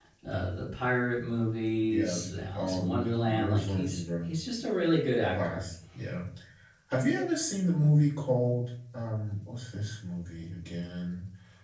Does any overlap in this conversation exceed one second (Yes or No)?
Yes